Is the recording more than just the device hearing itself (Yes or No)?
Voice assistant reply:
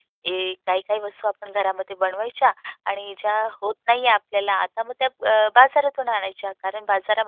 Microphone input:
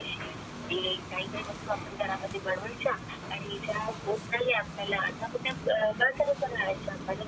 No